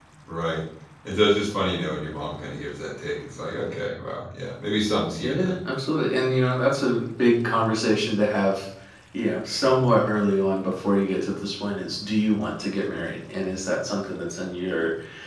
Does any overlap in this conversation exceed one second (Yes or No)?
No